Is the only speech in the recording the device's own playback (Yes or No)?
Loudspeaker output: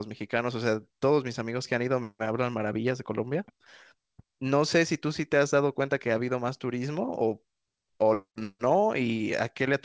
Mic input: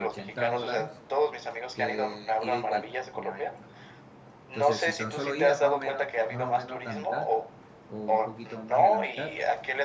No